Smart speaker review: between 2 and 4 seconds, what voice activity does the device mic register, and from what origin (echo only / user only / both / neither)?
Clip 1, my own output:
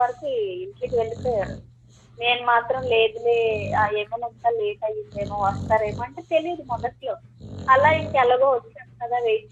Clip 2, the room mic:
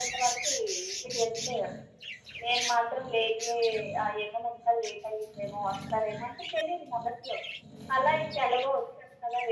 echo only